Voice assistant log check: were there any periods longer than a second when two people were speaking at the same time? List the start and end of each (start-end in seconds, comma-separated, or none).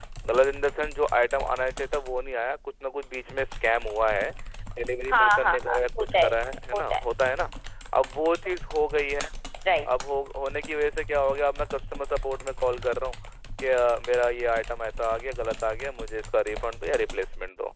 5.1-6.3